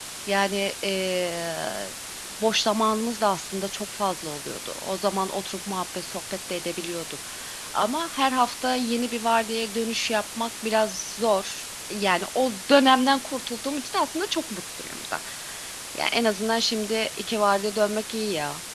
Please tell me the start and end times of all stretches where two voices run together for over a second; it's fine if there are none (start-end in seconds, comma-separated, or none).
none